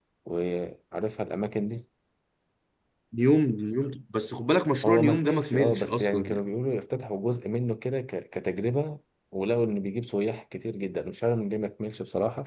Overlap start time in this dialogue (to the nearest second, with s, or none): 5 s